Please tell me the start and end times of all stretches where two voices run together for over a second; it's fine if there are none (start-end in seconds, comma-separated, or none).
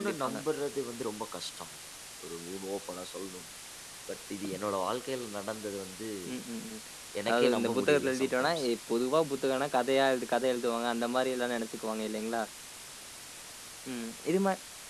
7.3-8.7